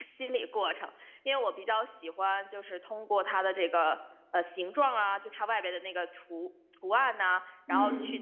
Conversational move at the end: listening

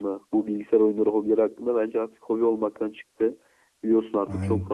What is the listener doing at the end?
listening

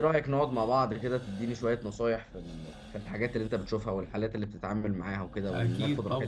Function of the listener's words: taking over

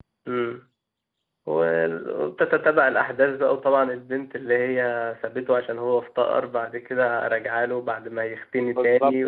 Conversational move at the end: taking over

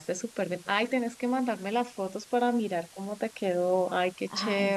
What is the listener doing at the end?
taking over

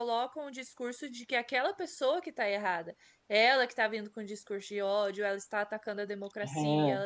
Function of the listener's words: listening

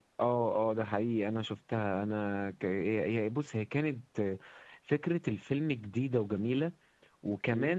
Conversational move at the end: listening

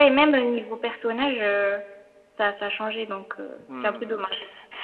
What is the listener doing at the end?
taking over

